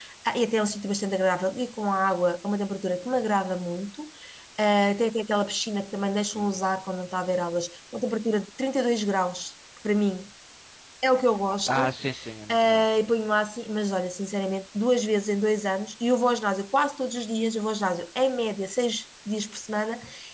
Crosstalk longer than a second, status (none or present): none